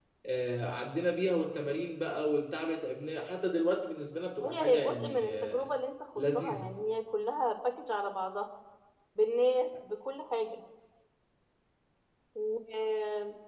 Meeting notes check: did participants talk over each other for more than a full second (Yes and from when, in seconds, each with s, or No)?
Yes, from 4.4 s